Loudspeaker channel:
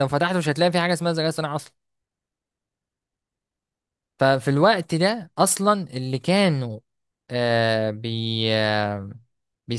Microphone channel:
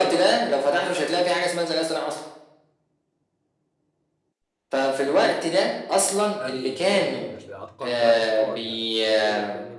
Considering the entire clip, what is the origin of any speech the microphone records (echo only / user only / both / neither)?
both